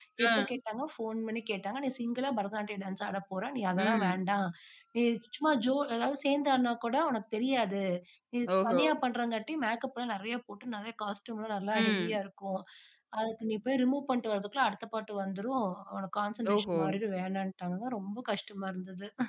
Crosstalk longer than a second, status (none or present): none